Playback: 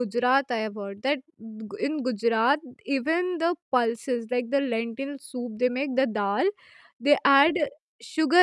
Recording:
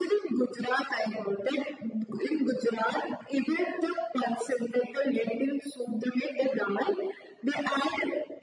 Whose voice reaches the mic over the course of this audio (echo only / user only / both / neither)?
echo only